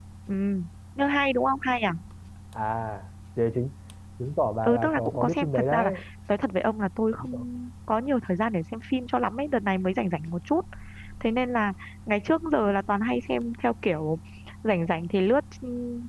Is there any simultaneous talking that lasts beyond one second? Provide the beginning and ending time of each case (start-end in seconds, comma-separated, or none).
4.6-5.9